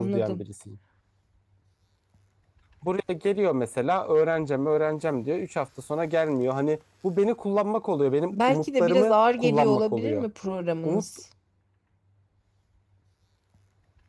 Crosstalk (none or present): present